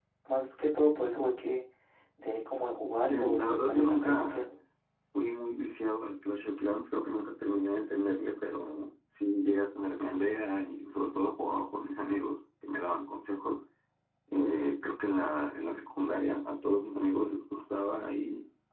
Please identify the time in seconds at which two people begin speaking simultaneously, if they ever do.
3.1 s

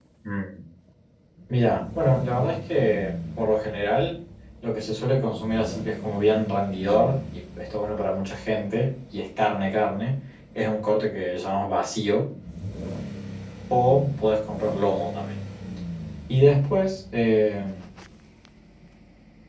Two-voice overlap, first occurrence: none

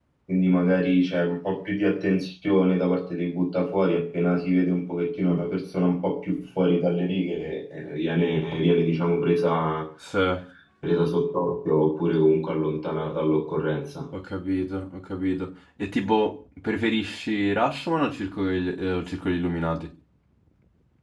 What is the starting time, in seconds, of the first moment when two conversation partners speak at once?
none

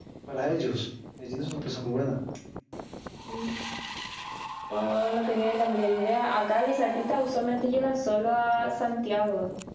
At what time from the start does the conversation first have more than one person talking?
none

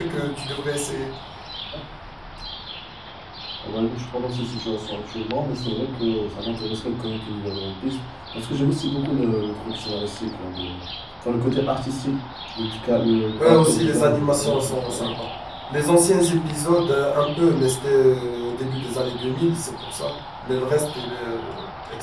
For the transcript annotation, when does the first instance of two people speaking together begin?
13.4 s

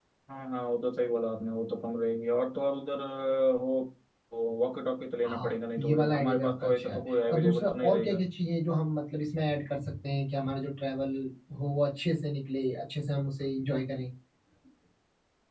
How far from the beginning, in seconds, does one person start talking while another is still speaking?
5.2 s

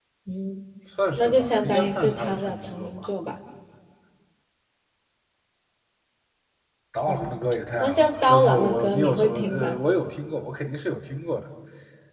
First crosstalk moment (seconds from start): 1.2 s

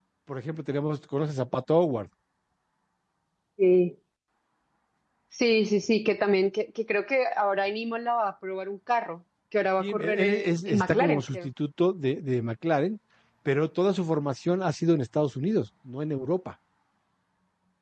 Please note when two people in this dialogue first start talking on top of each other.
9.8 s

